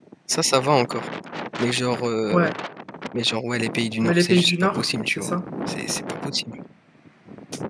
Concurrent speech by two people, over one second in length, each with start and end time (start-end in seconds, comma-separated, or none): 4.0-5.3